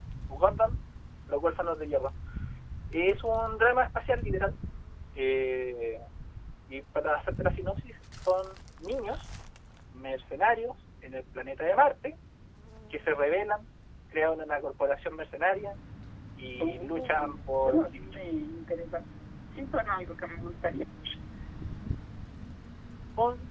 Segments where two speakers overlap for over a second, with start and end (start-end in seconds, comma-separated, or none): 16.6-18.0